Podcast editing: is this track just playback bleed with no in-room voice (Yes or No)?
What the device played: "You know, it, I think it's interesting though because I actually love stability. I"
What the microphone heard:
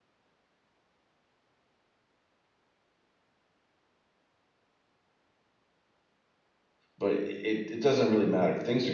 No